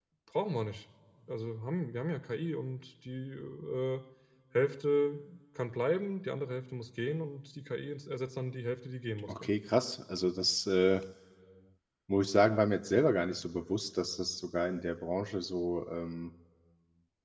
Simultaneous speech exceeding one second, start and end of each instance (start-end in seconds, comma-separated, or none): none